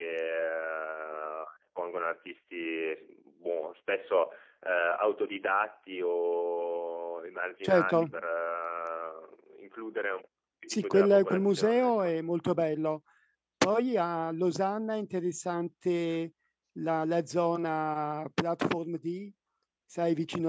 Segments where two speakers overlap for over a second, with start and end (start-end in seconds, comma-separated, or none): 10.7-12.1